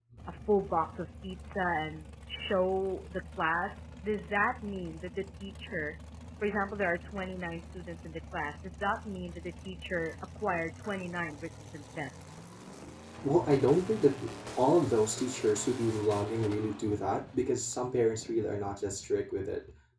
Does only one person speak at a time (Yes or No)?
Yes